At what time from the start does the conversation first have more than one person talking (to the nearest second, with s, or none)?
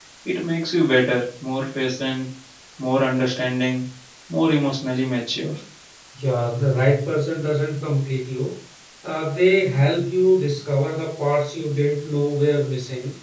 none